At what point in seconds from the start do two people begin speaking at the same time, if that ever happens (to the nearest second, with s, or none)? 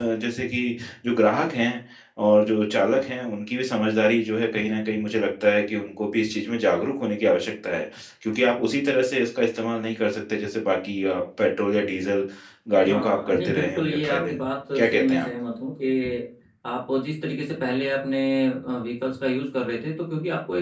13 s